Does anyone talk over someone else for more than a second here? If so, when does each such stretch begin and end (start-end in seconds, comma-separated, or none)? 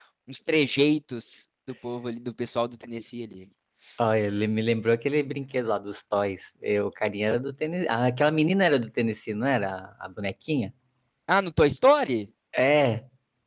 none